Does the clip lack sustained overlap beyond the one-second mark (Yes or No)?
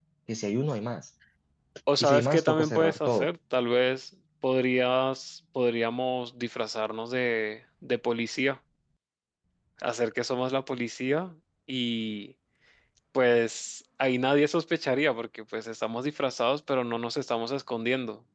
No